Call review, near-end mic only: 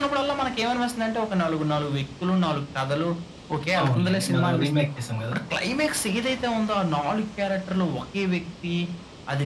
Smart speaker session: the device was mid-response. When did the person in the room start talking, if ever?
3.8 s

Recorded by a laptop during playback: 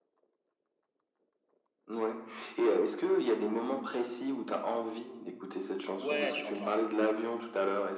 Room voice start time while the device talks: 6.0 s

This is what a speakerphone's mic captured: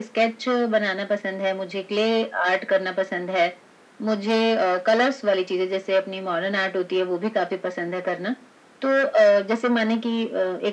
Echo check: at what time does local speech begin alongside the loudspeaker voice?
none

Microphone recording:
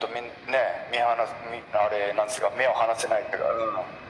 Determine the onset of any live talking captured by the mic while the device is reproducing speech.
none

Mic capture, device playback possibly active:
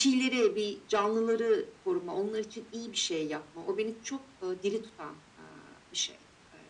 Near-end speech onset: none

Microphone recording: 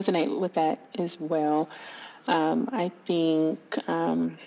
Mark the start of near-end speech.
none

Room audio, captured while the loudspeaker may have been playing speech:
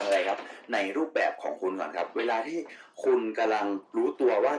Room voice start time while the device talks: none

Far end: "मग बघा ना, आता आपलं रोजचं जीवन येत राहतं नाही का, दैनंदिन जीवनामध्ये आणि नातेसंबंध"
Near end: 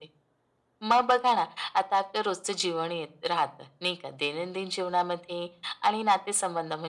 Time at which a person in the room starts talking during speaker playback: none

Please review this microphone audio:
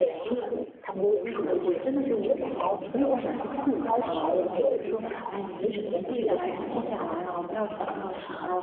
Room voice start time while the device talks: 1.2 s

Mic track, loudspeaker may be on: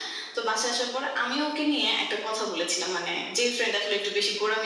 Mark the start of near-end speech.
none

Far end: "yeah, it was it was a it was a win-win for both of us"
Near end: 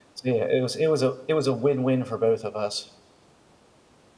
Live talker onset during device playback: none

